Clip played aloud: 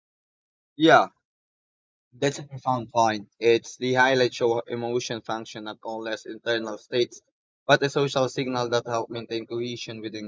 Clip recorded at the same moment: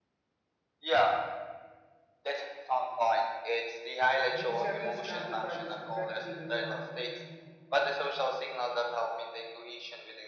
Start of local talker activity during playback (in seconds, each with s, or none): 4.3 s